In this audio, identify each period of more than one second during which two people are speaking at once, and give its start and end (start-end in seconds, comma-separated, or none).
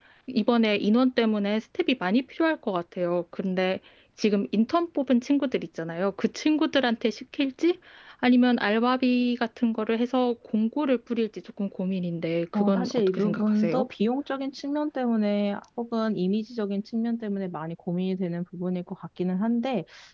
12.5-13.9